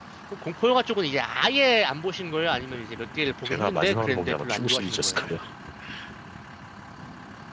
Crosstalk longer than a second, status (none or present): present